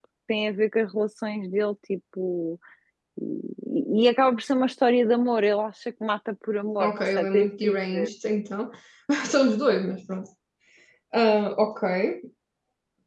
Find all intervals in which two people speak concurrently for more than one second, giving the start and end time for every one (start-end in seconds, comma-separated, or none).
6.8-8.1